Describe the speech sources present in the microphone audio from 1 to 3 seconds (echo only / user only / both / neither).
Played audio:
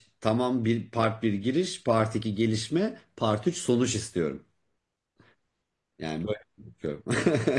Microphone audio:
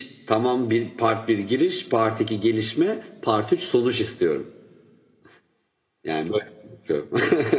echo only